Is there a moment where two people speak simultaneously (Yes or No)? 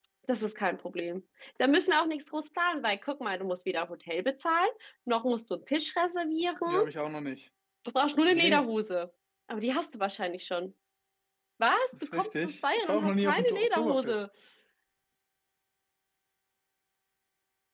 Yes